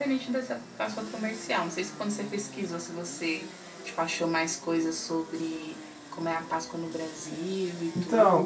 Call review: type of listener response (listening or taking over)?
taking over